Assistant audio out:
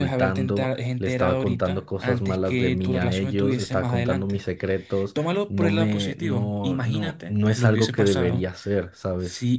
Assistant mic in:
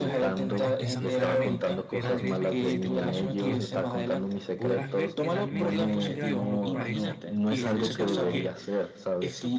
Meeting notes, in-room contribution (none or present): present